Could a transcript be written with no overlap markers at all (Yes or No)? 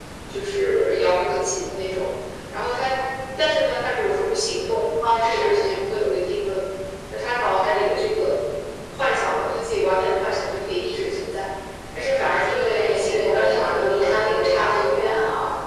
No